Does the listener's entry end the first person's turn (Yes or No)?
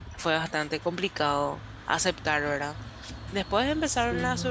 No